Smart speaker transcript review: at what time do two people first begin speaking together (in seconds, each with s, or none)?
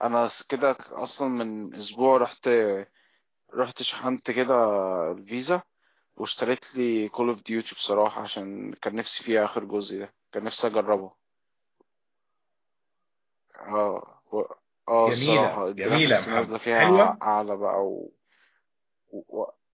15.0 s